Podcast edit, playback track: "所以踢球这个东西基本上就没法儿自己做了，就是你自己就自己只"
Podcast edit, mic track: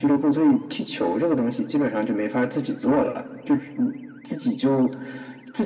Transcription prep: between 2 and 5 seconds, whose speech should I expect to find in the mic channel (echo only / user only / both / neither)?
echo only